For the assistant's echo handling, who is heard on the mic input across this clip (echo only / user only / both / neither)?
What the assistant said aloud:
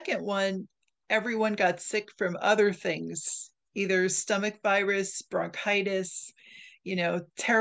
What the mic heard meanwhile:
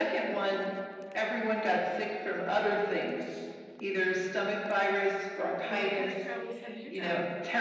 both